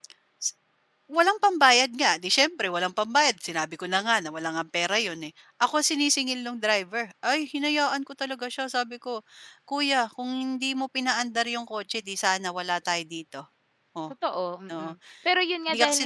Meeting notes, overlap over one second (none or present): none